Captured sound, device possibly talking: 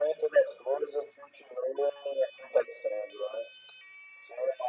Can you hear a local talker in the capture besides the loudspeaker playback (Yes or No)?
No